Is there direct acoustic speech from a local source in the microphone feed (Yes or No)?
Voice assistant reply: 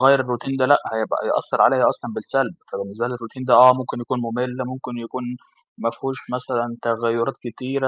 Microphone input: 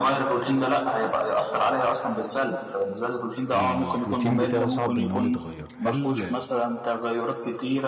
Yes